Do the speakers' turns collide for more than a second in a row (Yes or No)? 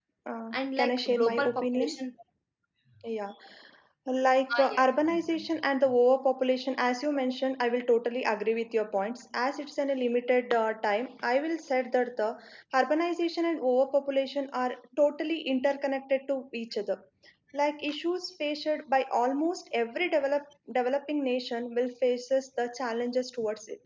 Yes